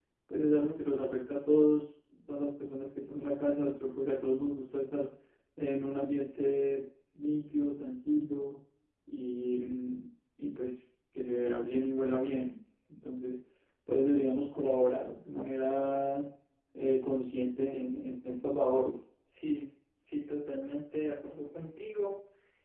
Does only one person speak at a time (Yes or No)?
Yes